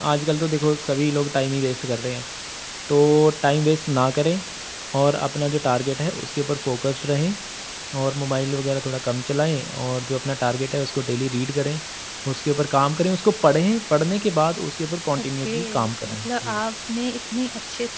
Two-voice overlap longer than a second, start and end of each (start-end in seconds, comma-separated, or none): 15.2-16.6